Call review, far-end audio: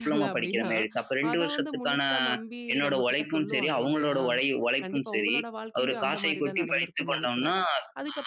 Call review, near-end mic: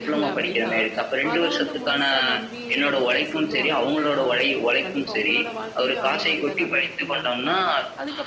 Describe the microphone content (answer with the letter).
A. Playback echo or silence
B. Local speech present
A